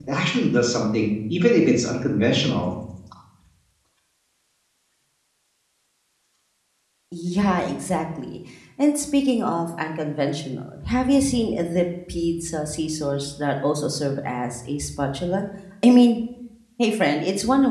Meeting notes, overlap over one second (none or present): none